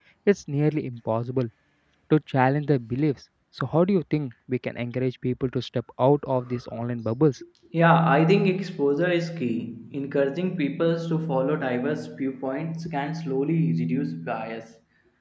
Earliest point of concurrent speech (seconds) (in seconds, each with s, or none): none